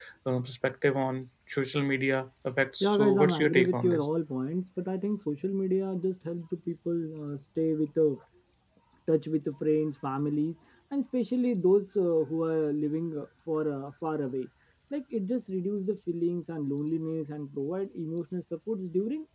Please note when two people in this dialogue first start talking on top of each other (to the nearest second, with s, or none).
3 s